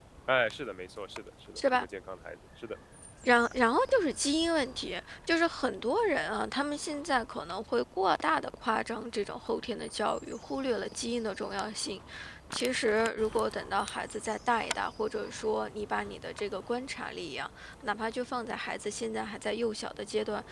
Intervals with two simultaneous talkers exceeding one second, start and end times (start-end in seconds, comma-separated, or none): none